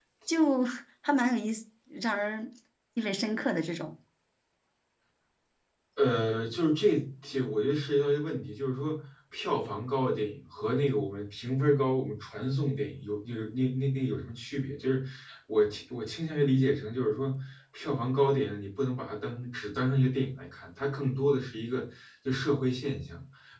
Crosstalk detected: No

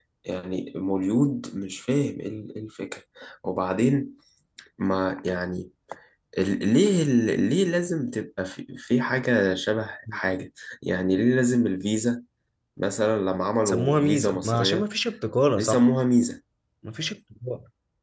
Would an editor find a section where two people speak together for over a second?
Yes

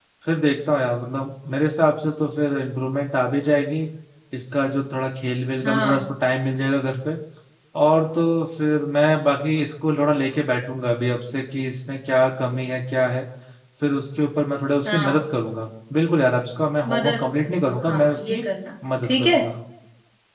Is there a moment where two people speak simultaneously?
Yes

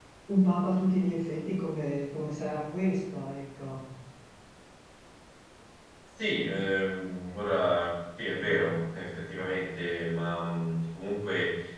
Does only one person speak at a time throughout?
Yes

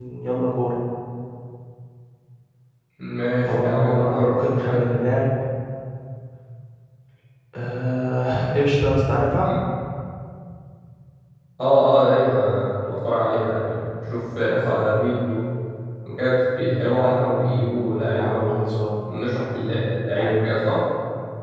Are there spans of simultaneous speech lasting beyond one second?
Yes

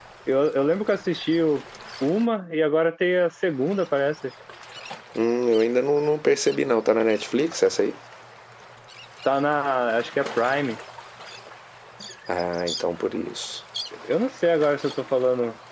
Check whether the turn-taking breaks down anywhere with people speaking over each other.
No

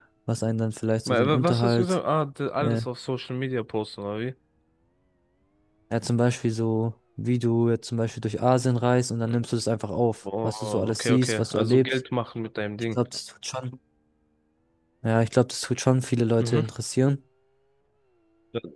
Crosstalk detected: Yes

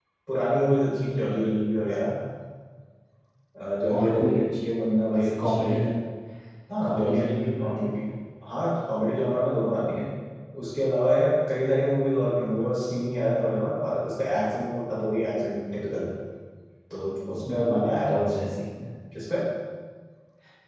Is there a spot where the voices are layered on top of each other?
Yes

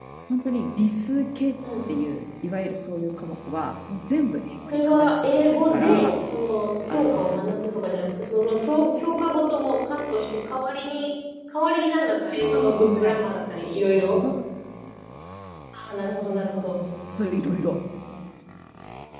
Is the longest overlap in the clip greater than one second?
Yes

